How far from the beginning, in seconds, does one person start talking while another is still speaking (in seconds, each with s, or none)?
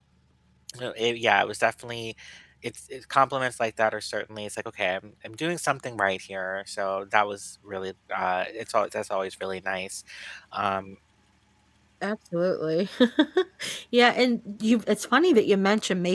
none